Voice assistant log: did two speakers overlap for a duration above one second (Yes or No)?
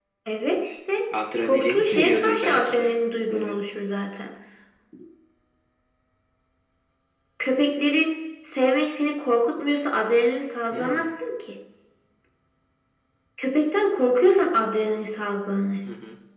Yes